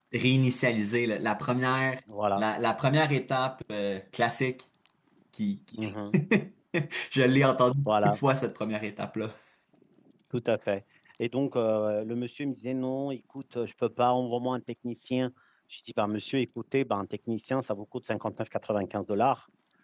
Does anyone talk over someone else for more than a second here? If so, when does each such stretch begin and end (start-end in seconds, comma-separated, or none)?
none